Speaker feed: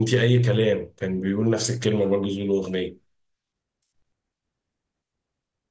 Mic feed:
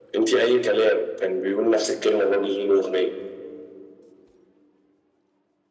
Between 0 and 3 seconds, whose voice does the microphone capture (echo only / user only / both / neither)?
echo only